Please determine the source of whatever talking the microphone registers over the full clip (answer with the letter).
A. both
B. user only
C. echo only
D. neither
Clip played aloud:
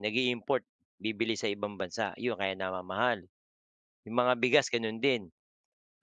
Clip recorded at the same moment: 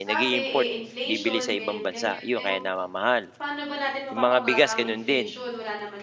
A